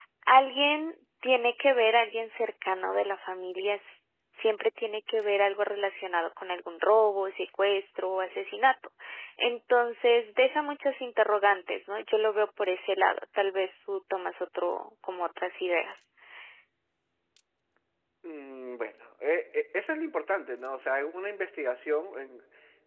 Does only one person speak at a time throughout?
Yes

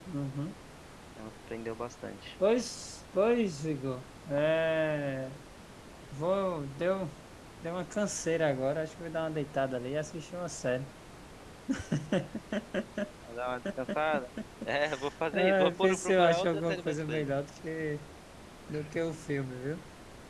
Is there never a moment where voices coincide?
No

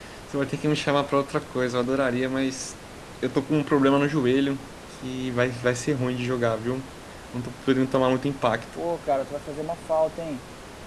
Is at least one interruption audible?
No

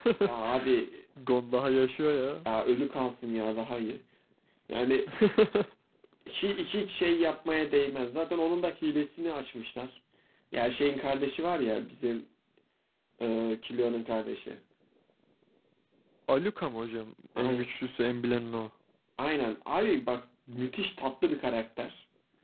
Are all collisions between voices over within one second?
Yes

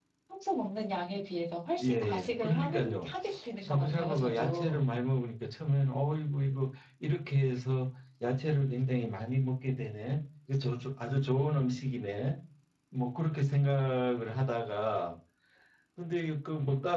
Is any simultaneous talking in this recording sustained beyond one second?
Yes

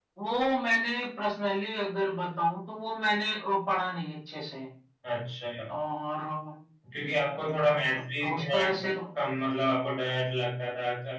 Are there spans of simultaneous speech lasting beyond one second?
No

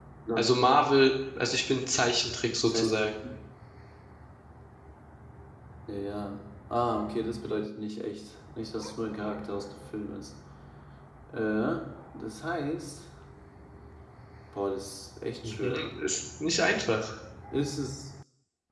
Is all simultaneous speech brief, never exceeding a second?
Yes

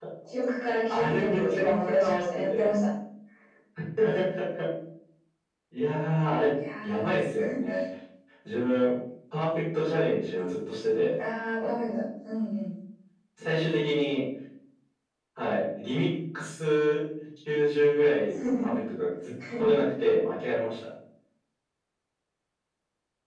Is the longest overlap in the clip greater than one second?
Yes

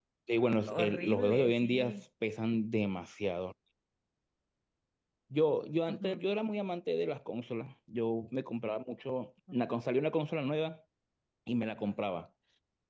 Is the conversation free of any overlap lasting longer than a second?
No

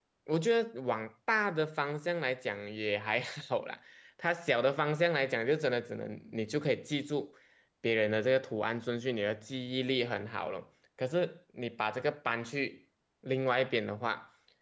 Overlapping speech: No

